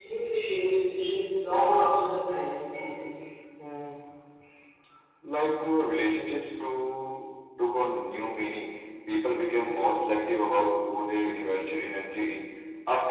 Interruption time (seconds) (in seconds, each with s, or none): none